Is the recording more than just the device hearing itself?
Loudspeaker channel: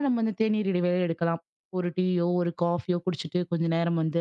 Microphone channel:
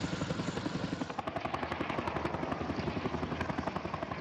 No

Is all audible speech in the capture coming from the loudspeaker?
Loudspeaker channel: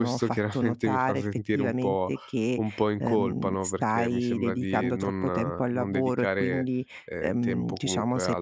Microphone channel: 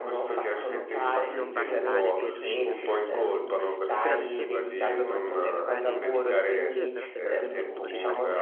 No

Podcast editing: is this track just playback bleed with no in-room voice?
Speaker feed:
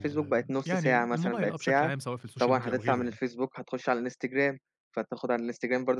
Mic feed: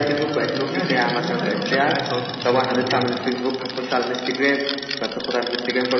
Yes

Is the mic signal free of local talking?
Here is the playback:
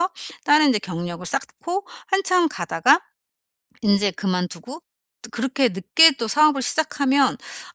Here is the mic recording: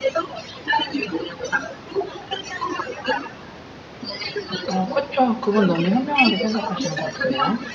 No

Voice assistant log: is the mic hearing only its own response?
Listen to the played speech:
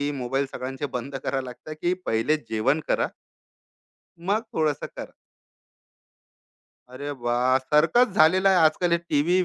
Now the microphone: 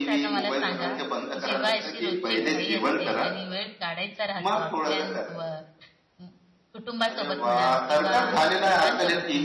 No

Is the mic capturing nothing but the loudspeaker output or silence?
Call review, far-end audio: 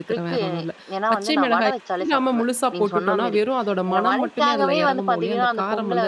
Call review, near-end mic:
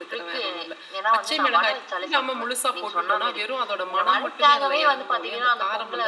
Yes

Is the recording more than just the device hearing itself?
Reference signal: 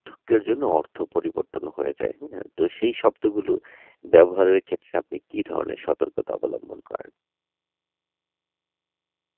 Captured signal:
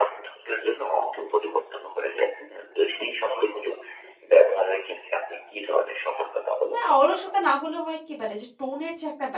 Yes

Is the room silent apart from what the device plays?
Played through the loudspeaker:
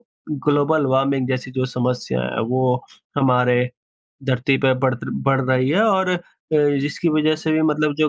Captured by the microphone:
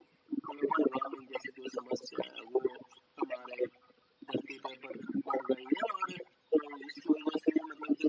Yes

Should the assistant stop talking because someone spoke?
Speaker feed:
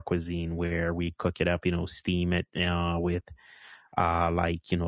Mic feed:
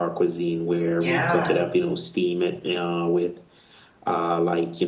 Yes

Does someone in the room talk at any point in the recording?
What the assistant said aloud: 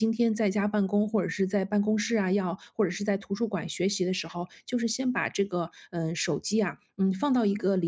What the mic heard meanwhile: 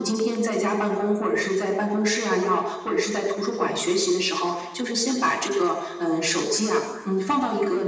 No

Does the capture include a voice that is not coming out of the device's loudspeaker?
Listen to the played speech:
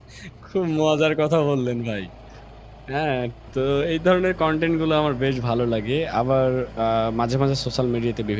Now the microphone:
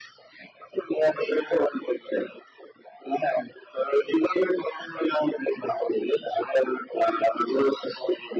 No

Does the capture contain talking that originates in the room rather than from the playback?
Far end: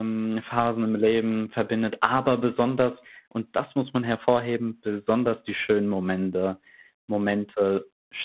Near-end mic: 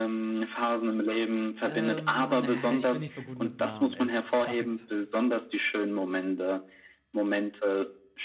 Yes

